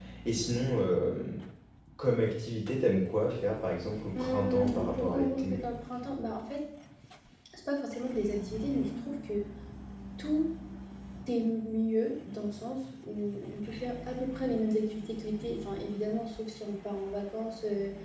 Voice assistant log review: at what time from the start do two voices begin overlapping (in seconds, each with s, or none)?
4.1 s